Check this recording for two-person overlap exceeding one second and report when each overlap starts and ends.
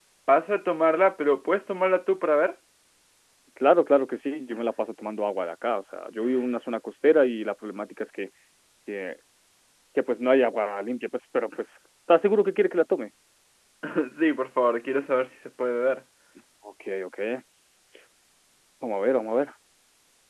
none

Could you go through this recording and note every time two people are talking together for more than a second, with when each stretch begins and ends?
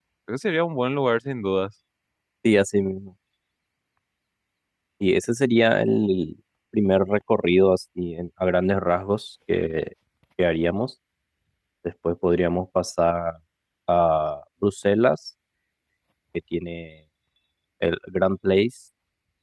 none

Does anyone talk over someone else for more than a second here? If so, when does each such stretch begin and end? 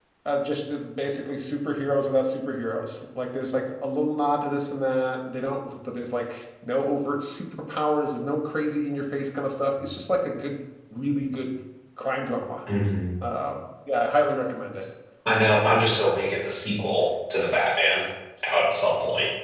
none

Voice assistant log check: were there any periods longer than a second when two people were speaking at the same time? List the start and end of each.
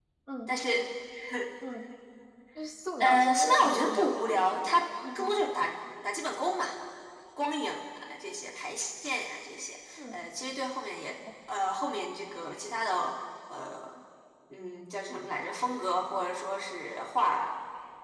3.0-4.3

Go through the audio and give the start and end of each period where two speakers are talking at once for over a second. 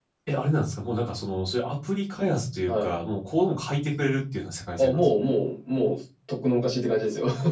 none

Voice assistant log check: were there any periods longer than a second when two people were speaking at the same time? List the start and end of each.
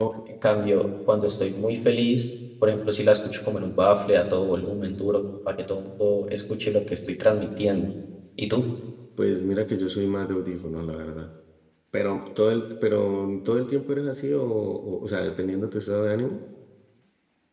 none

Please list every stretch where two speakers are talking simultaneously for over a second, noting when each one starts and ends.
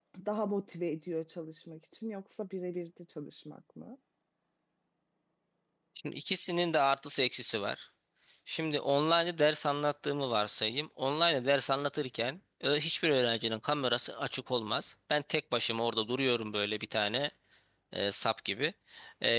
none

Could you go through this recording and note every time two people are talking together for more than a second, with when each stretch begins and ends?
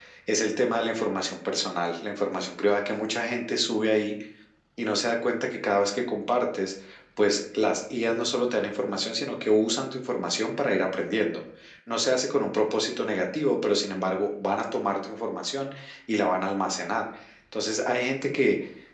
none

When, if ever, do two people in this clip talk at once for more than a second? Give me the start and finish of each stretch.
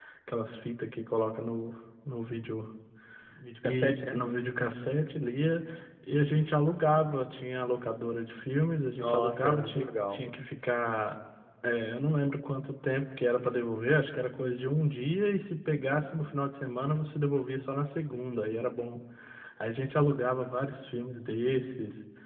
9.0-10.2

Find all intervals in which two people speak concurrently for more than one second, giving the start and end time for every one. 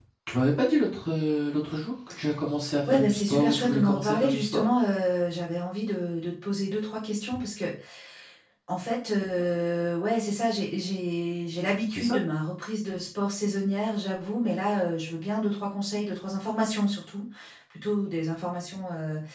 2.9-4.7

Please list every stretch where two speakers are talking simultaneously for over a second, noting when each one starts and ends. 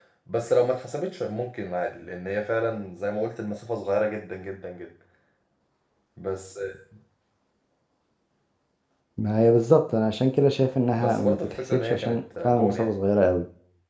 11.0-12.9

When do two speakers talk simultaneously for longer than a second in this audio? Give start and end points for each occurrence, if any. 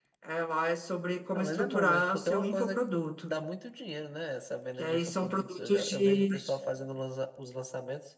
1.3-2.8, 4.8-6.3

